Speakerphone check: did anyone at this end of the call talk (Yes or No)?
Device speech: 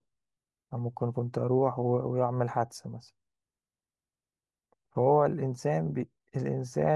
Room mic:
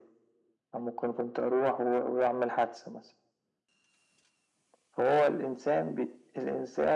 No